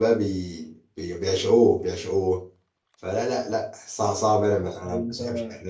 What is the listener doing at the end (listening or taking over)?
listening